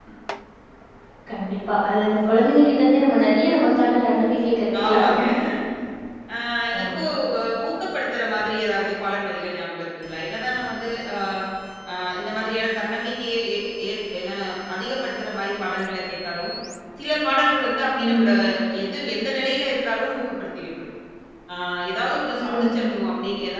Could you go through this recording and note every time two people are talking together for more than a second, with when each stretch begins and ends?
none

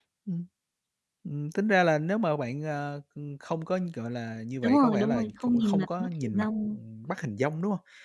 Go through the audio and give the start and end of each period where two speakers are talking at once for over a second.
4.6-6.8

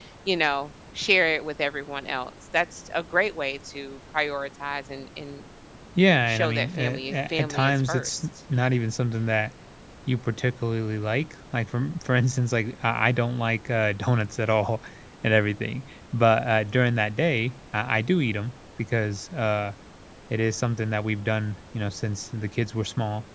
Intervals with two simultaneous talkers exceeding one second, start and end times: 6.3-8.3

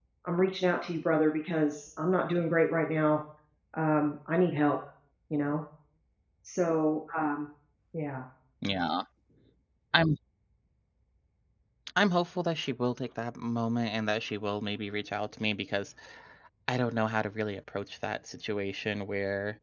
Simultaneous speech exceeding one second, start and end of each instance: none

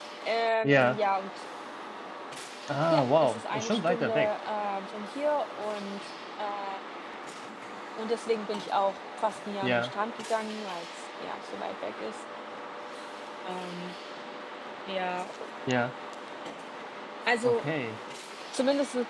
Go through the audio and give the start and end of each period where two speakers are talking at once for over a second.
2.9-4.3

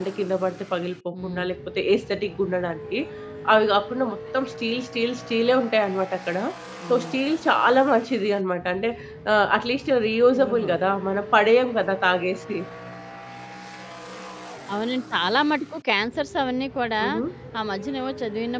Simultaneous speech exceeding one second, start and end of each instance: none

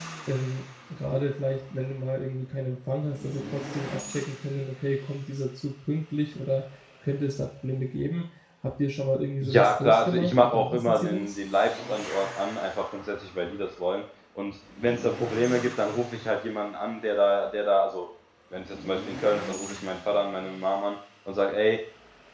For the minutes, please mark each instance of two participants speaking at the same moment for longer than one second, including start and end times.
9.4-11.4

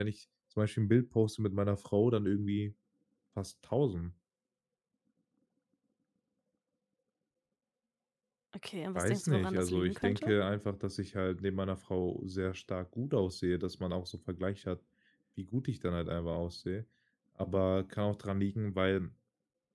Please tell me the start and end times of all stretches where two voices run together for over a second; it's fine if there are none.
8.9-10.3

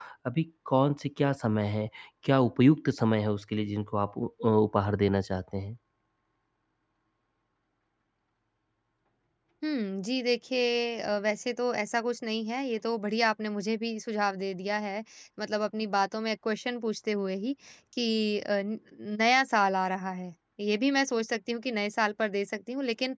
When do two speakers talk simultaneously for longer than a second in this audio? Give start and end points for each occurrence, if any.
none

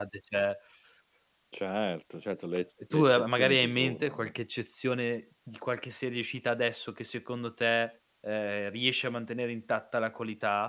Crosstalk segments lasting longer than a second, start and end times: 2.9-4.3

